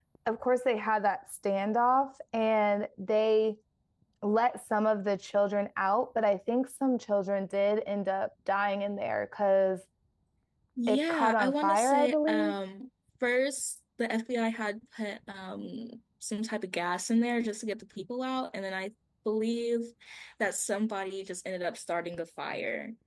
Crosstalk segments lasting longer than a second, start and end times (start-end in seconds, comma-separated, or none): 10.9-12.5